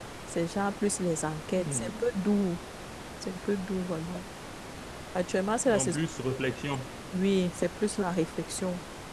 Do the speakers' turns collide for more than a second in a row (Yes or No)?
No